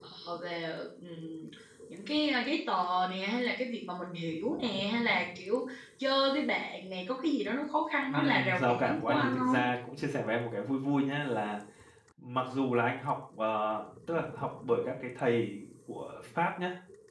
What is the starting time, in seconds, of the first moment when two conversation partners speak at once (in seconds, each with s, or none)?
8.1 s